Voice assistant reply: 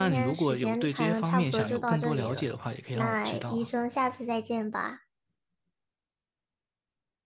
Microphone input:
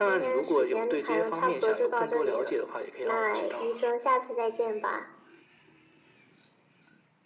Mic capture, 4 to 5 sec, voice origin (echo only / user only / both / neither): echo only